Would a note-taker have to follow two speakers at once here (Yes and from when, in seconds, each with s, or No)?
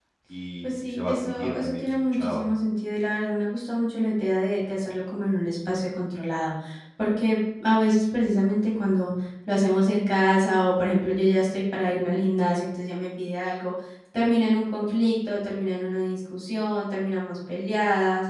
Yes, from 0.6 s